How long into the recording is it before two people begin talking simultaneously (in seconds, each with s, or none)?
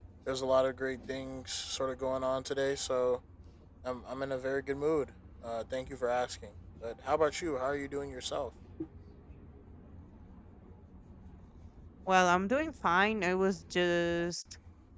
none